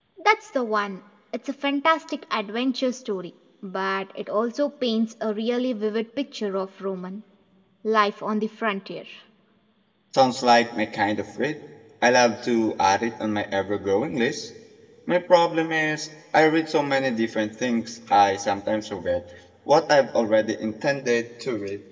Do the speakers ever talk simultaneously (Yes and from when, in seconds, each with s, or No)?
No